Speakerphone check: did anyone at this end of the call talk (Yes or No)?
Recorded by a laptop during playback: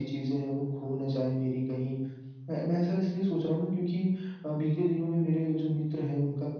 No